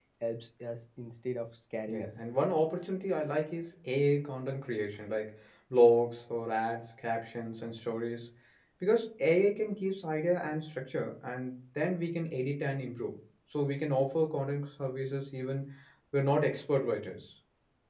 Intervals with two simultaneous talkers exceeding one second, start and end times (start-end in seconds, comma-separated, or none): none